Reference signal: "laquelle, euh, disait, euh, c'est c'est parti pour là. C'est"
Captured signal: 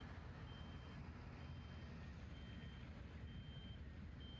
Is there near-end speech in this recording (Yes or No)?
No